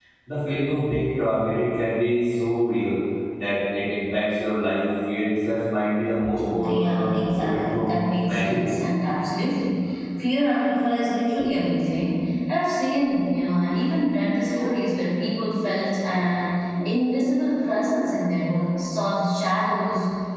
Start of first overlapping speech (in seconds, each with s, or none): 6.4 s